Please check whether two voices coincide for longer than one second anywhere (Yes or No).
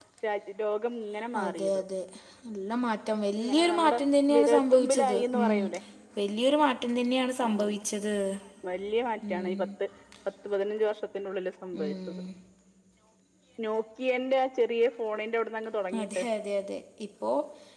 Yes